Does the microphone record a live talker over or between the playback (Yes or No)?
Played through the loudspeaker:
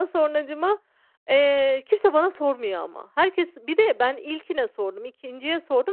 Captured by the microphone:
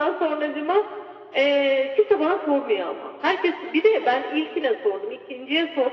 No